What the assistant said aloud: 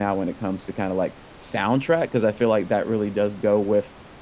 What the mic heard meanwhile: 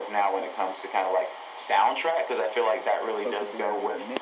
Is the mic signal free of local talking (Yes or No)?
No